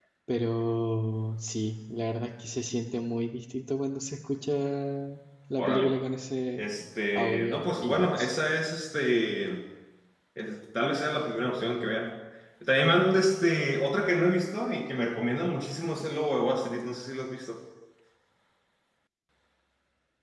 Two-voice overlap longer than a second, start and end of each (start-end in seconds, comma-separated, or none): 7.2-8.4